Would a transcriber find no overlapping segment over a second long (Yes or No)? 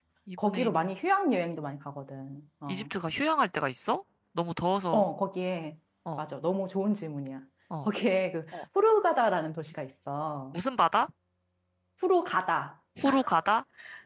Yes